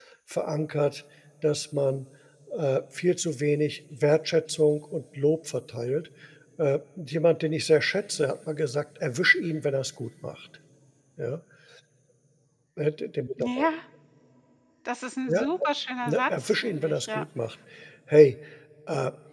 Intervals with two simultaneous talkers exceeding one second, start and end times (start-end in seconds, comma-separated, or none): 16.0-17.2